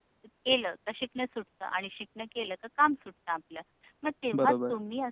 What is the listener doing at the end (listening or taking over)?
listening